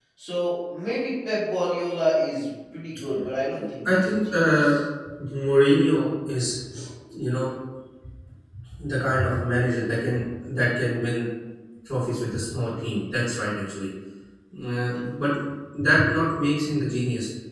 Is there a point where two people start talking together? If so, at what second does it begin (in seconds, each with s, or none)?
3.5 s